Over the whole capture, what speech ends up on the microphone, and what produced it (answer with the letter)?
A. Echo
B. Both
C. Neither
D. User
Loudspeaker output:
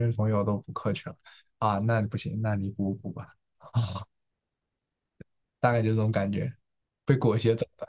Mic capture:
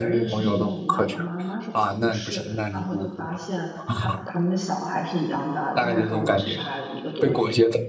B